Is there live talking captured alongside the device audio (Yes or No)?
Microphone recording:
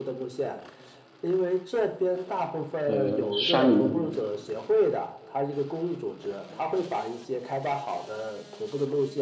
Yes